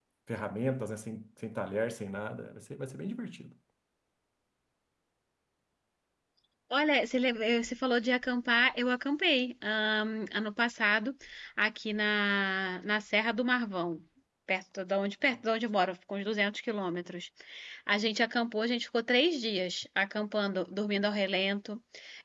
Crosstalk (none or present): none